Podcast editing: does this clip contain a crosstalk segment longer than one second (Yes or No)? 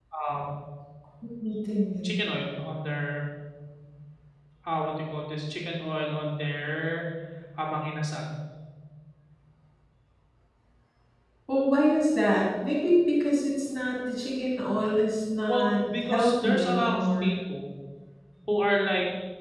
Yes